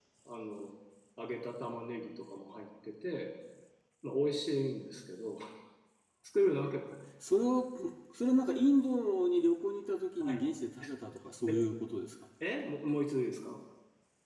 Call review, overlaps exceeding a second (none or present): none